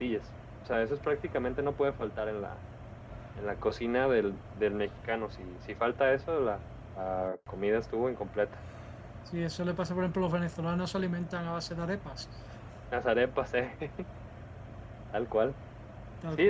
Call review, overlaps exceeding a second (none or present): none